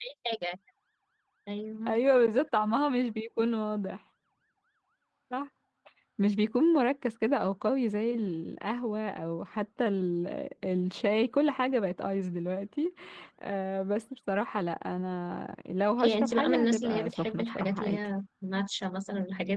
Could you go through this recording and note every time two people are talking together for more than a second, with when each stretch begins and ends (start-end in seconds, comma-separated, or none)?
16.0-18.1